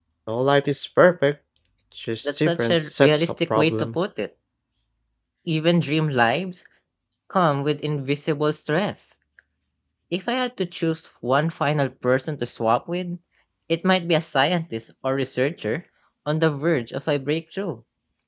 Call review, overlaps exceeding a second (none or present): present